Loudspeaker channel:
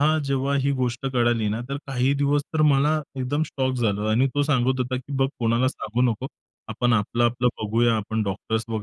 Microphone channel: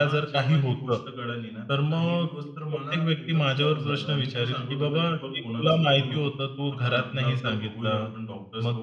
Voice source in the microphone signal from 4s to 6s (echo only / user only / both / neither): both